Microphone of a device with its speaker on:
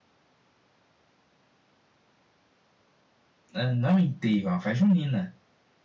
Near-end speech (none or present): present